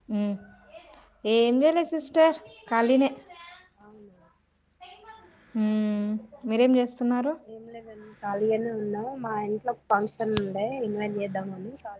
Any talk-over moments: No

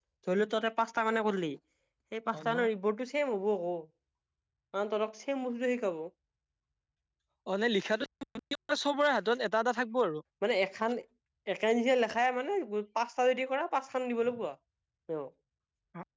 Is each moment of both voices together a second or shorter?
Yes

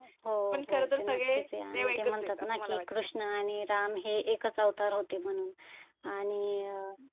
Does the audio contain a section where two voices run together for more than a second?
Yes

